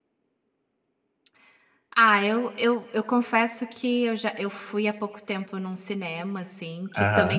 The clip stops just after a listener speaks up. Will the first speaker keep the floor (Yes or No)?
Yes